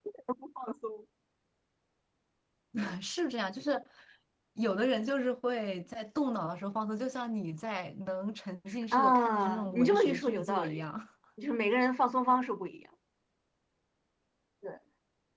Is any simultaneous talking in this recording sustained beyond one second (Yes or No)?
Yes